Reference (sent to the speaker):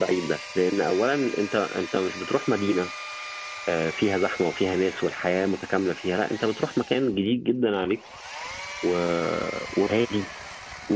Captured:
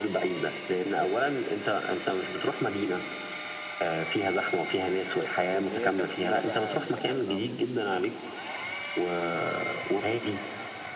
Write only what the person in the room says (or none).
بس اسكندريه كمدينه بقى متكامله عموما